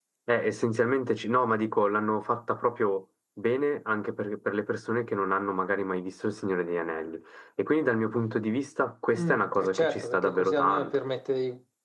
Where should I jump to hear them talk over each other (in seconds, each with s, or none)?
9.1 s